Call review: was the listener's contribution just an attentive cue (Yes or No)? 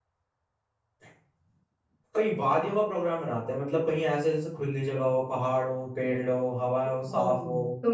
No